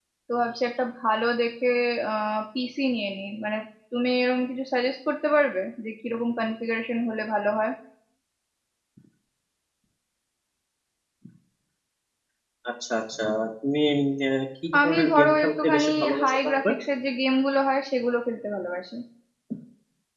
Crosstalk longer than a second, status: present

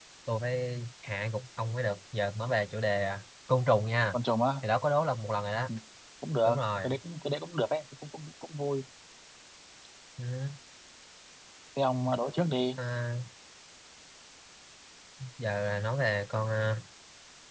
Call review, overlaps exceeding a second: none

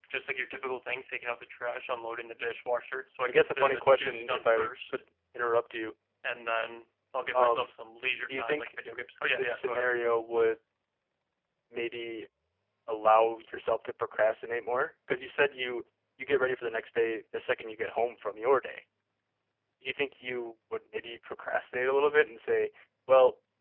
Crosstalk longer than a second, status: present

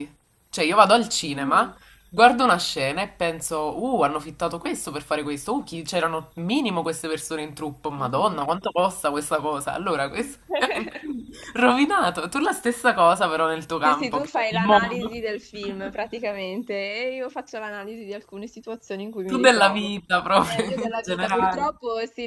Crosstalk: present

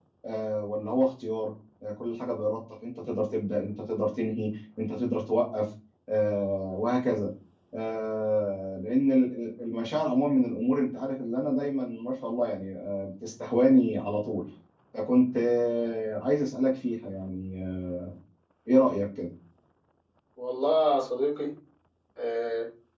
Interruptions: none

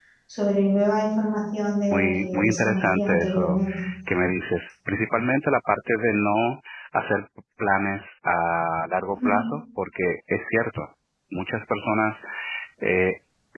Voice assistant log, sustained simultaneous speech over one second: present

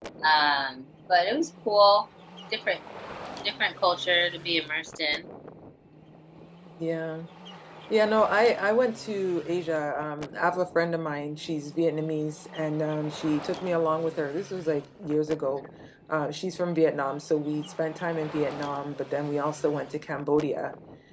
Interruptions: none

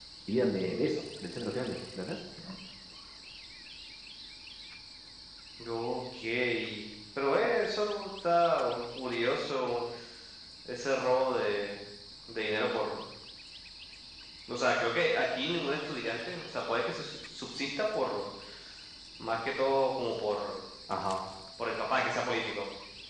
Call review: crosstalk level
none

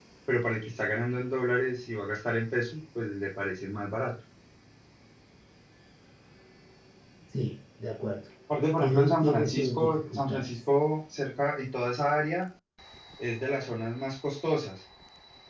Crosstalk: present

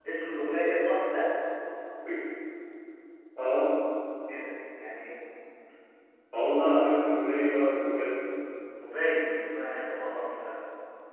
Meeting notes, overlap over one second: none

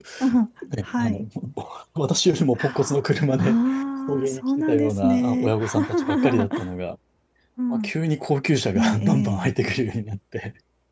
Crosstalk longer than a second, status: present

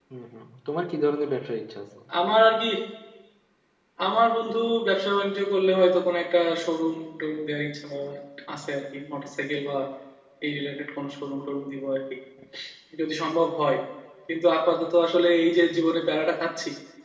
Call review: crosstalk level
none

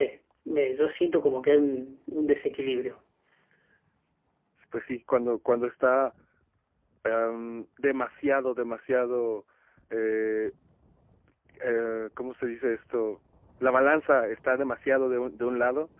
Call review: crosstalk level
none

